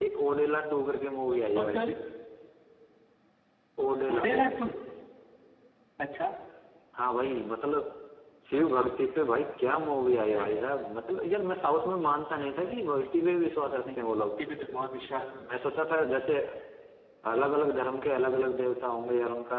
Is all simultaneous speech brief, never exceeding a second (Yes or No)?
Yes